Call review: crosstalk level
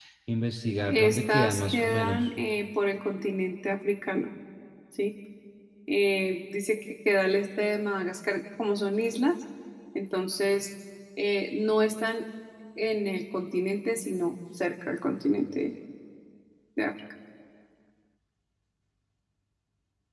present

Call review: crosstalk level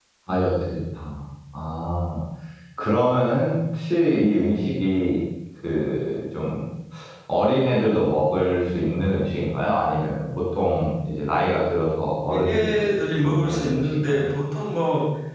present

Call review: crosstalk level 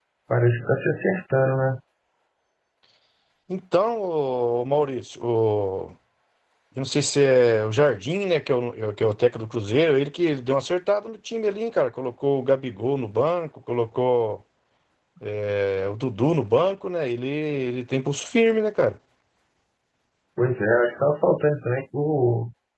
none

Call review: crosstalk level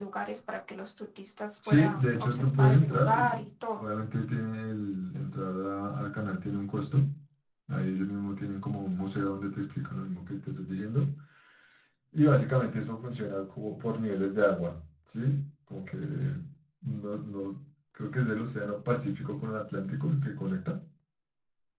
present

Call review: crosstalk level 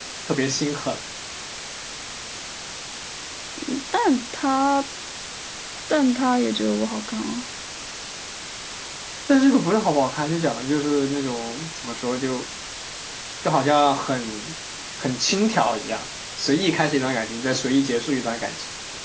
none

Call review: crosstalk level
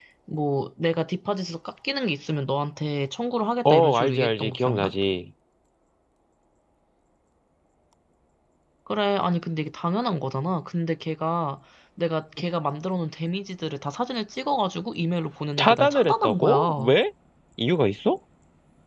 present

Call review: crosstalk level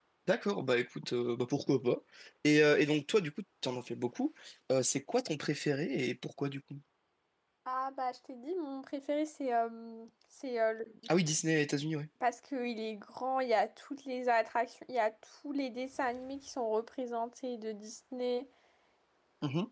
none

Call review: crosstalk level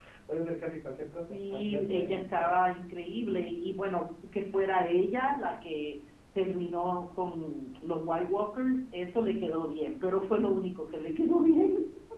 present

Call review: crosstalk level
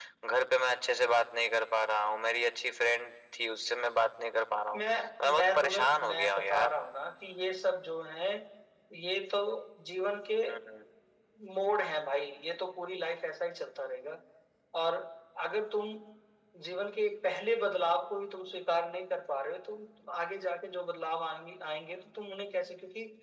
present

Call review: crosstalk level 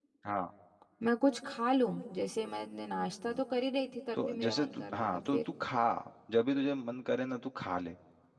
present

